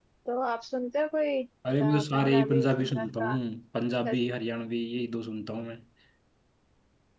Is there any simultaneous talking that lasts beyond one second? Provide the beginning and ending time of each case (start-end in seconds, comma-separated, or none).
1.8-3.4